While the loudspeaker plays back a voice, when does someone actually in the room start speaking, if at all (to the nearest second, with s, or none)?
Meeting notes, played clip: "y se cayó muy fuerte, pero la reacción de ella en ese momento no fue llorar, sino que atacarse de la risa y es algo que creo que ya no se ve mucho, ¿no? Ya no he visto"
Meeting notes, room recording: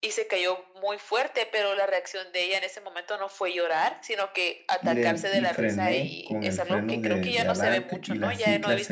5 s